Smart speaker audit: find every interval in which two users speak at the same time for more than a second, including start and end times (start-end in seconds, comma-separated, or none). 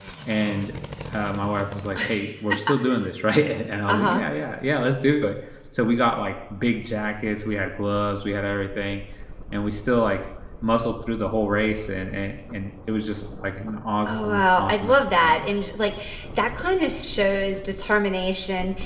14.1-15.6